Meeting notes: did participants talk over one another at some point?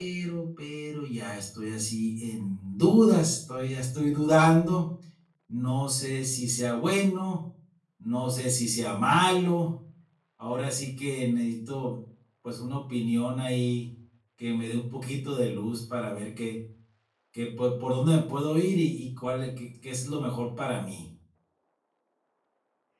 No

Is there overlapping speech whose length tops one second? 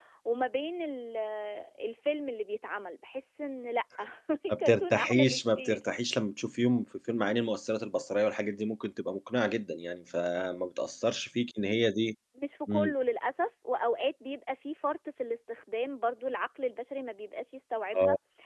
Yes, from 4.5 s

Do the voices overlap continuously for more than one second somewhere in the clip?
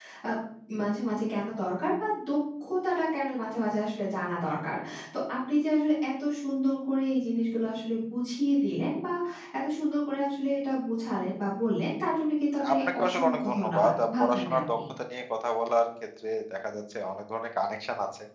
Yes, from 12.6 s

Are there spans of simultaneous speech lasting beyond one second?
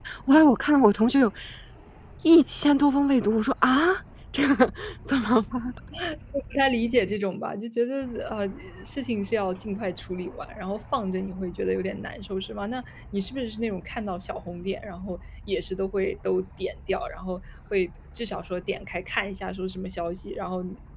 No

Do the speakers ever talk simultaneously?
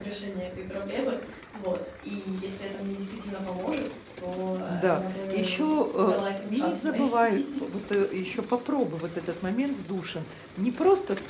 Yes, from 4.7 s

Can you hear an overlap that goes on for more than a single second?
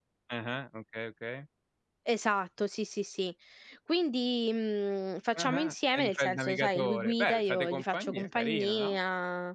Yes, from 5.3 s

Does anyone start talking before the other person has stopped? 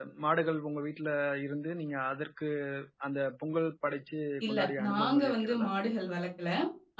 Yes, from 4.4 s

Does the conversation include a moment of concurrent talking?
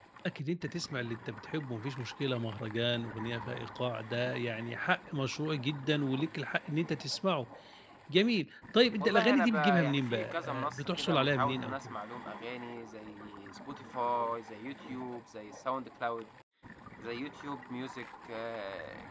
Yes, from 9.0 s

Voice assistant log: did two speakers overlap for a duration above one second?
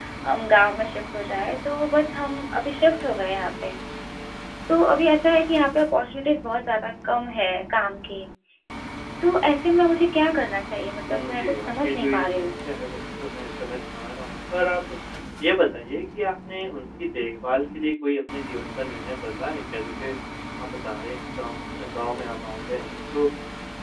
Yes, from 11.1 s

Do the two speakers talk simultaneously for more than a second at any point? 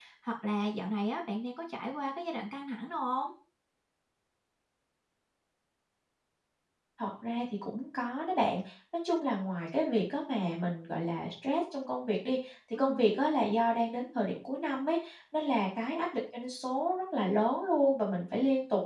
No

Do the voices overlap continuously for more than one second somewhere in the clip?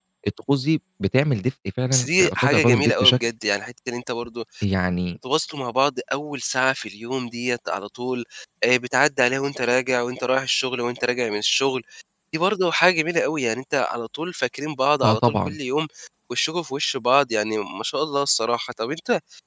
Yes, from 1.9 s

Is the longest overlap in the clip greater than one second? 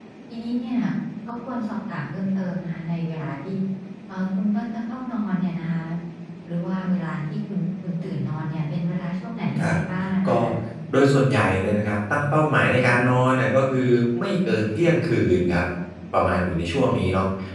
No

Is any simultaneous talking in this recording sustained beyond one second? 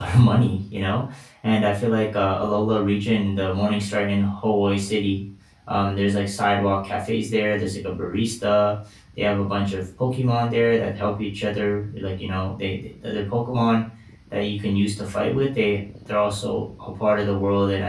No

